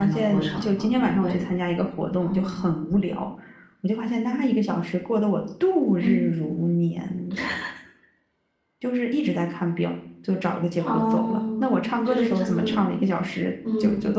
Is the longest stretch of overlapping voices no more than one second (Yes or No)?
No